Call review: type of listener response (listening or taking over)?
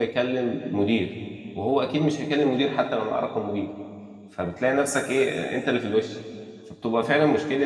listening